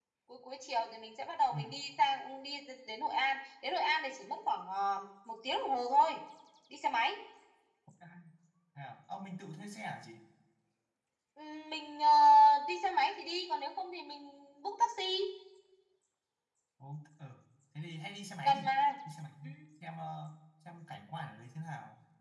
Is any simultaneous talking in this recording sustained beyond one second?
No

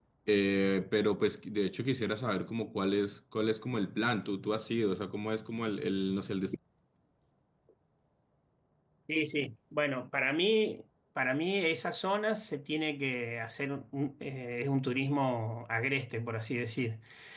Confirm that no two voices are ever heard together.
Yes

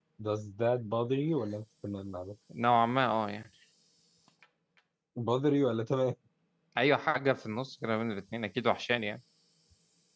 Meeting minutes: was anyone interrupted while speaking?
No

